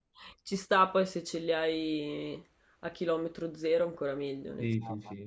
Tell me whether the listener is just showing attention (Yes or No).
No